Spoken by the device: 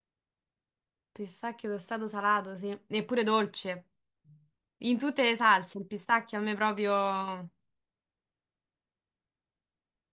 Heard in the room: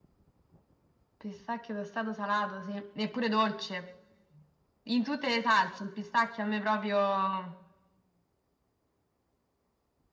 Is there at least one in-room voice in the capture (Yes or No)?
No